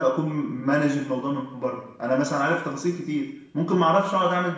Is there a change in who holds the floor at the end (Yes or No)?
No